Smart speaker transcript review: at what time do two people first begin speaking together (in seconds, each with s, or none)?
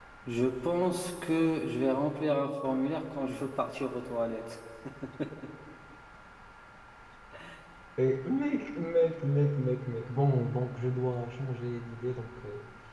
none